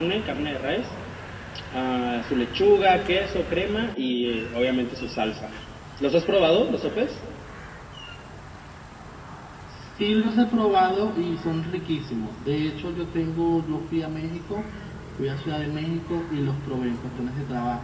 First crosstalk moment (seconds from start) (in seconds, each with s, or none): none